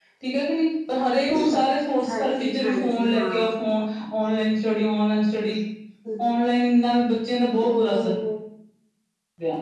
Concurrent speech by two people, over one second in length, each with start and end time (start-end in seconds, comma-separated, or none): 2.1-3.3